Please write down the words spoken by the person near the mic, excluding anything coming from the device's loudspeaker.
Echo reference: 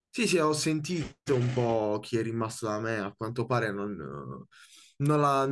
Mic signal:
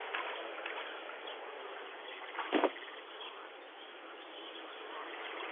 none

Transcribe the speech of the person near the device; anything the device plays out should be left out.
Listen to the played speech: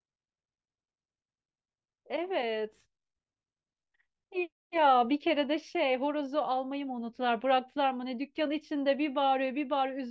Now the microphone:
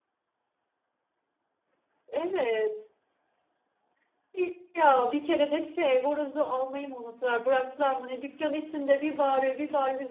none

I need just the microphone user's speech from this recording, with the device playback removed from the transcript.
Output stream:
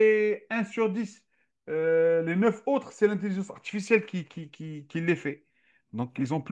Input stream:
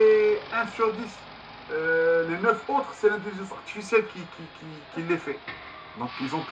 none

